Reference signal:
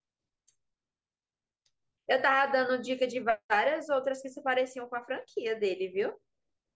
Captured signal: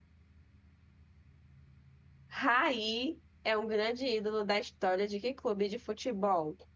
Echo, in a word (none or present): none